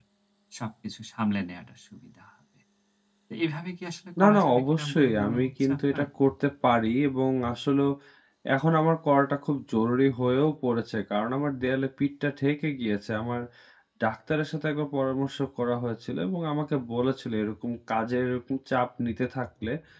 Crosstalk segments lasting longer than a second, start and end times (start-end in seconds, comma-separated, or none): 4.2-6.0